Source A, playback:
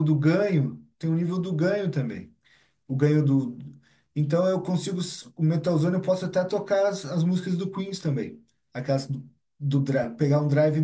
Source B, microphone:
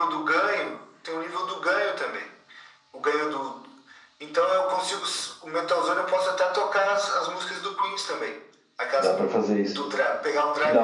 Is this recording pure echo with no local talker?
No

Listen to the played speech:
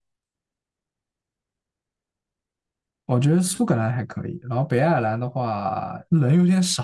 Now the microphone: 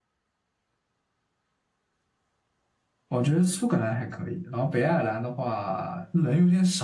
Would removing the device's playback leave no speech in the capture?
Yes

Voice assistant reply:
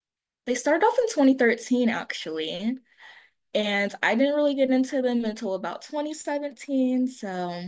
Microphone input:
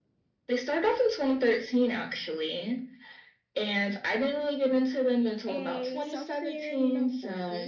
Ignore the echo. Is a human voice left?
Yes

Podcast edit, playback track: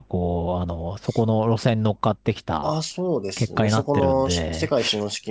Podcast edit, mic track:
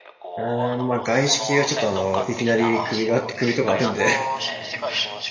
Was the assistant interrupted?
Yes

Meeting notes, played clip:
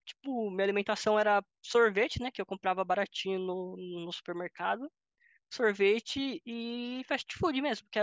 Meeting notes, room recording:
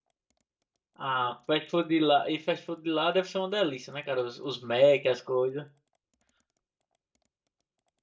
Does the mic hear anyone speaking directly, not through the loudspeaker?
Yes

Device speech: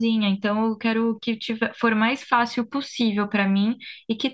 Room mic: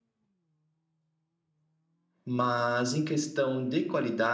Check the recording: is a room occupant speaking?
Yes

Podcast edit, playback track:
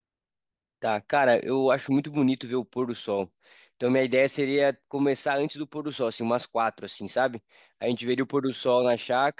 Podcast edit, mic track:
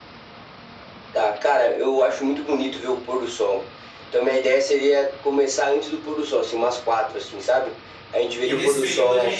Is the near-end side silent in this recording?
No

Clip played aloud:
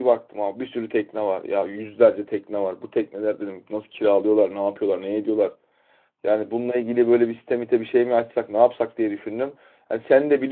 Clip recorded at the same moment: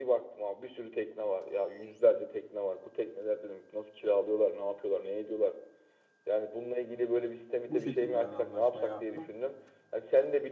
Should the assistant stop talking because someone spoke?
Yes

